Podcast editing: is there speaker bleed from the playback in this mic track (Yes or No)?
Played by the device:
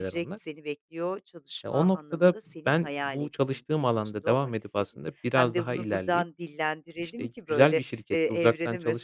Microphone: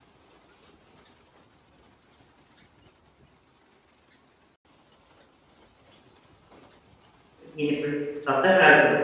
No